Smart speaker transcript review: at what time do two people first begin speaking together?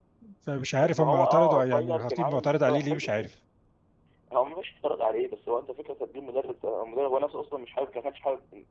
0.8 s

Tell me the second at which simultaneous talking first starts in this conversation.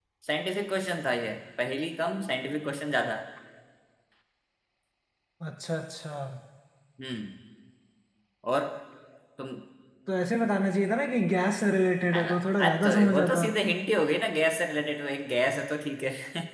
12.1 s

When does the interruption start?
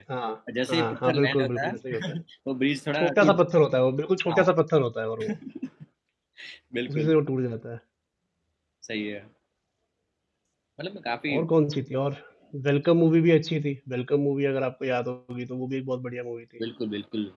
0.7 s

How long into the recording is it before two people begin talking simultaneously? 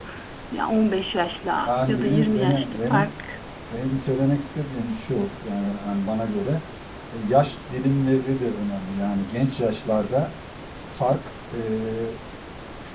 1.7 s

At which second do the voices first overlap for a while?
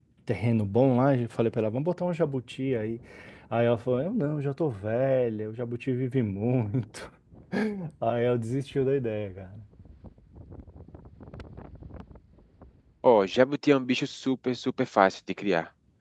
none

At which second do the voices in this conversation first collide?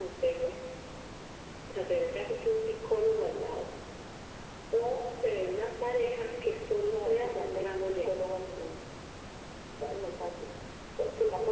6.8 s

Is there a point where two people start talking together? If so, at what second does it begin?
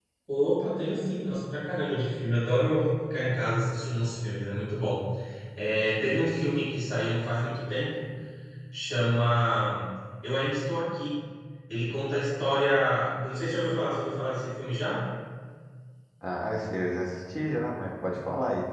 none

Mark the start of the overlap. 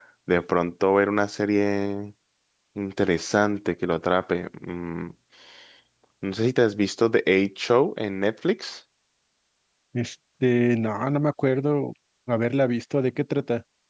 none

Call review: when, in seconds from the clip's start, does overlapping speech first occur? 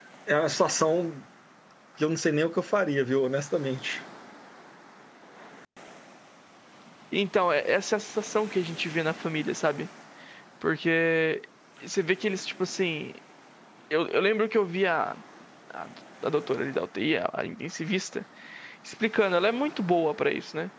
none

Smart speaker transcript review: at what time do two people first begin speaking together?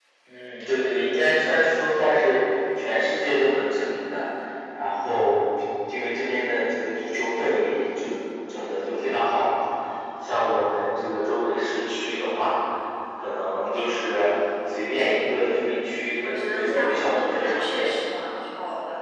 16.2 s

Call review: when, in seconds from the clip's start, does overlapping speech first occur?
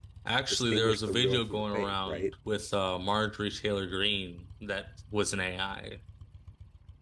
0.5 s

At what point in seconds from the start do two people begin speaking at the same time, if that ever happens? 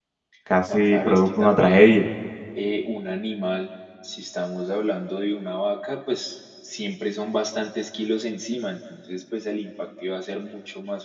0.7 s

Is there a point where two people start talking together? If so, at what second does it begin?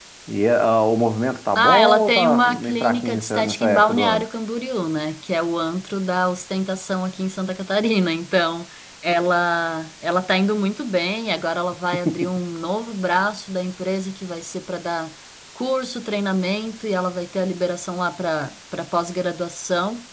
1.6 s

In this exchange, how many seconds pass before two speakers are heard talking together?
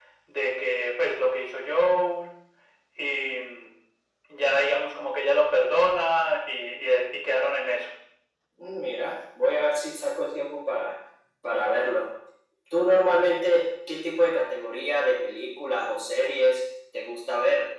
none

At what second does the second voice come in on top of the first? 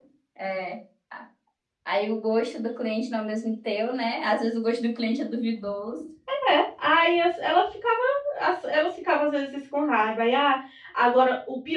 none

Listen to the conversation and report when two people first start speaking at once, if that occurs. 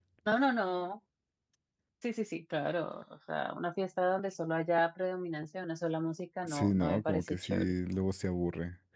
6.5 s

